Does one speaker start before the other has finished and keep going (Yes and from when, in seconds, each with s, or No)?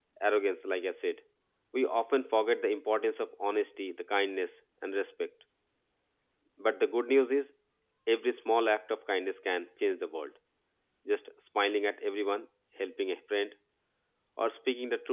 No